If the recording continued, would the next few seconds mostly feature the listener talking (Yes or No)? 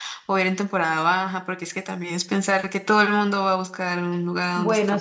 Yes